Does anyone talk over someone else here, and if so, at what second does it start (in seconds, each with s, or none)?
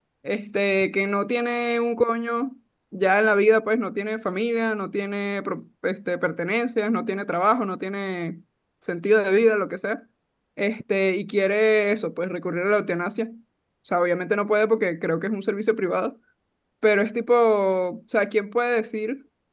none